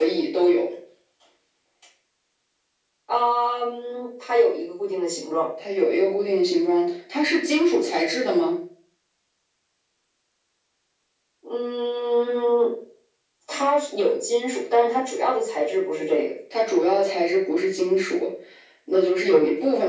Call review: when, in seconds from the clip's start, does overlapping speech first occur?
none

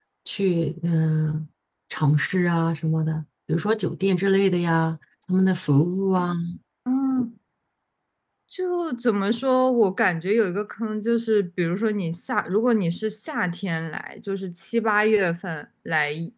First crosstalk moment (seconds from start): none

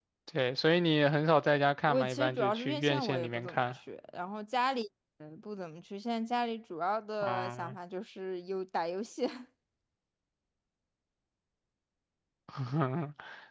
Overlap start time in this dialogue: 1.9 s

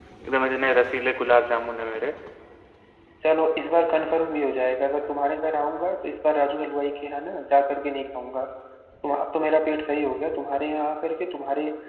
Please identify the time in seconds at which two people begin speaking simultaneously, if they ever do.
none

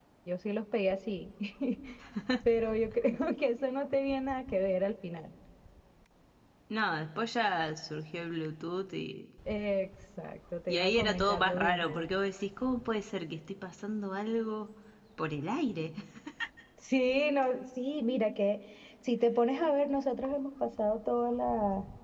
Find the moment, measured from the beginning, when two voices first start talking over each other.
10.7 s

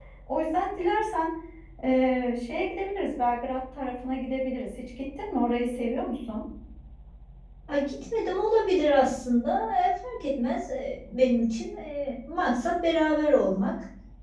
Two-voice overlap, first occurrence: none

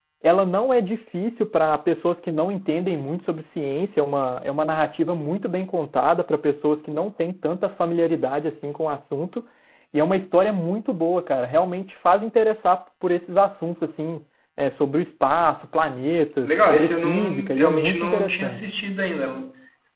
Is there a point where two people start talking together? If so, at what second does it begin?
16.4 s

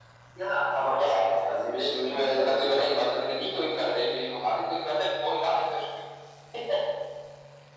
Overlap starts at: 1.0 s

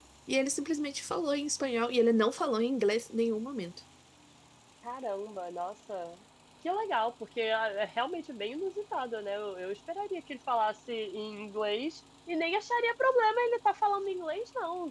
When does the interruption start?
none

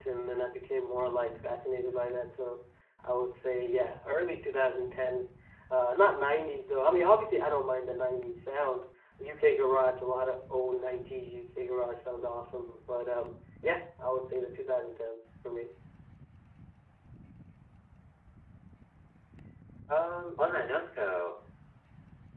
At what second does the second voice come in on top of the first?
none

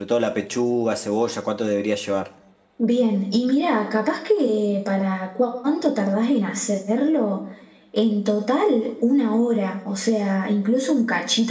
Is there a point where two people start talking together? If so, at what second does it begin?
none

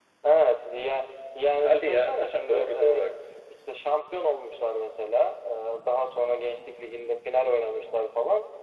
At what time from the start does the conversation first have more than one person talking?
1.6 s

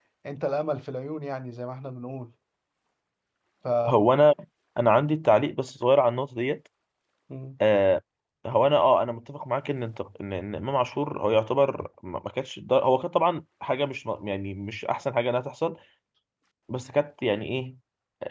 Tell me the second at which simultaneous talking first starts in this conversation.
none

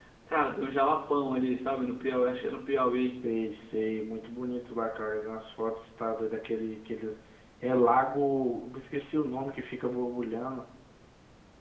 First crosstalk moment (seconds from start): none

